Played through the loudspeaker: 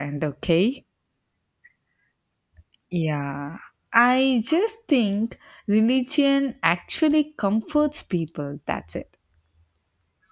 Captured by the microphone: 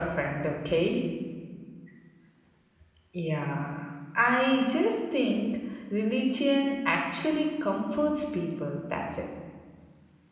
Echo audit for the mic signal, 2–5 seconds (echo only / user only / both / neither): echo only